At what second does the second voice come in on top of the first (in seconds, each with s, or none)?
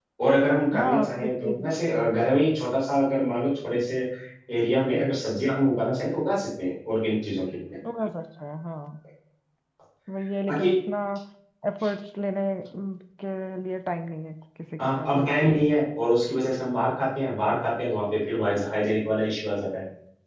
0.7 s